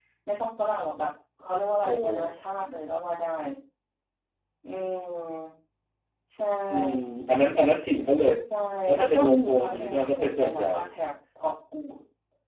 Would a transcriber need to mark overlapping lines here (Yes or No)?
Yes